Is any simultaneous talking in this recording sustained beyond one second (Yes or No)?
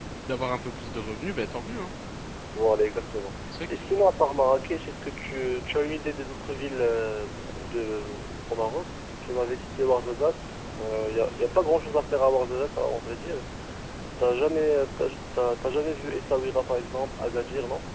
No